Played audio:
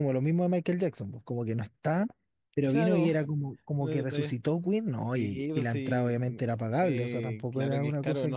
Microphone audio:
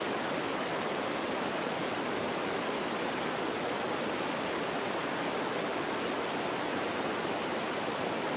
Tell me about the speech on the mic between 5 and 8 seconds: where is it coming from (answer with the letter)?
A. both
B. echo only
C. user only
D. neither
D